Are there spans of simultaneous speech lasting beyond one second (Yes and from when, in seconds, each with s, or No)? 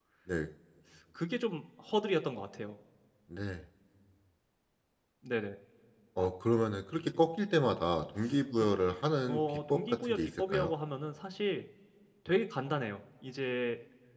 Yes, from 9.3 s